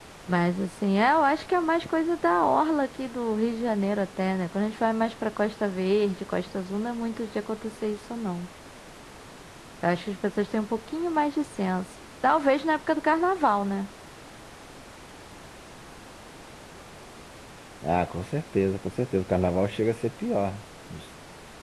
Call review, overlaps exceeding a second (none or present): none